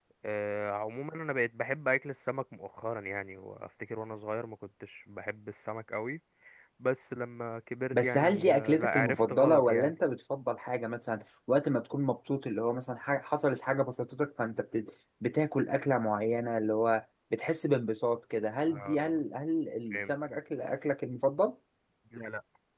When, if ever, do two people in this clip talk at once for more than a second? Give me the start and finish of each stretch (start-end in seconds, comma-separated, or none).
7.9-9.9